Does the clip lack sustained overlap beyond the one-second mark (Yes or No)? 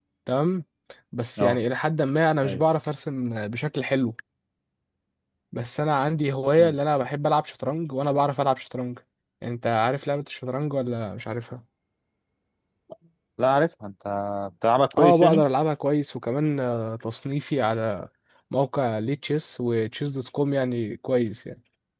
Yes